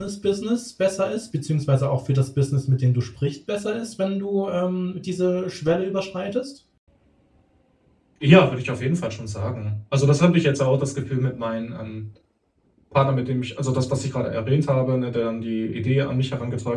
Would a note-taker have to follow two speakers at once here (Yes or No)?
No